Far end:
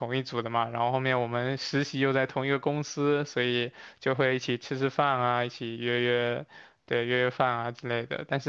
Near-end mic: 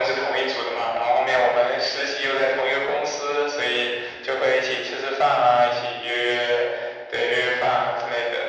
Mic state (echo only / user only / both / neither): echo only